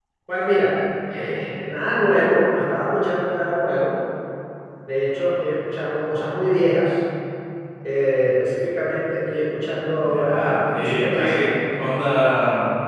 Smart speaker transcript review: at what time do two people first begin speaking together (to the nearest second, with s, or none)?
10 s